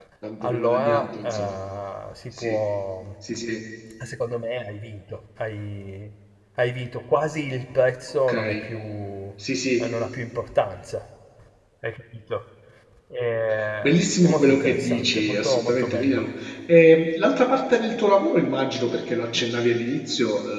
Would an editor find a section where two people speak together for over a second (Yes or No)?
Yes